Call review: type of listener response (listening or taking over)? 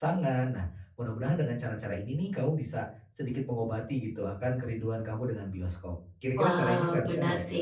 taking over